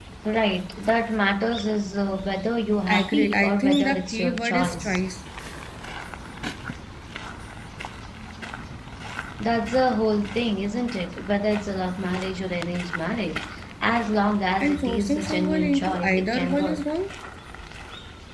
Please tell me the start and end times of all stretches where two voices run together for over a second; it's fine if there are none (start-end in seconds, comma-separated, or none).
3.0-5.0, 14.6-16.9